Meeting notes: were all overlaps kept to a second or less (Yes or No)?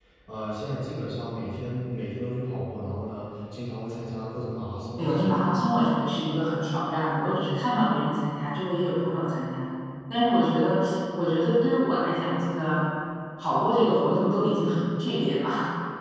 Yes